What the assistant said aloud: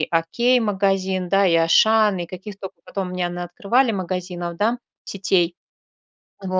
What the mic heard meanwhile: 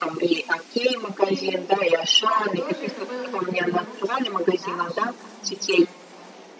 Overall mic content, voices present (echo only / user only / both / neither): both